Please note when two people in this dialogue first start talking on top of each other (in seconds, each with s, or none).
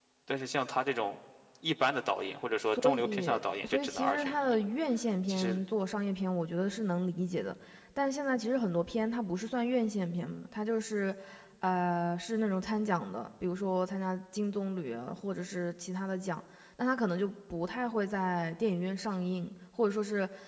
2.8 s